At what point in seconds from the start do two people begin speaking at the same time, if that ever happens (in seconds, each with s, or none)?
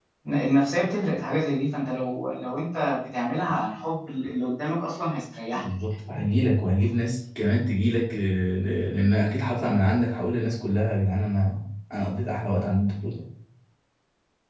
none